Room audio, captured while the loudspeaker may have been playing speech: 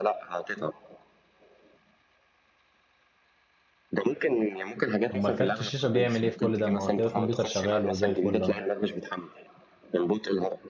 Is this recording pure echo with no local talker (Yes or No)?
No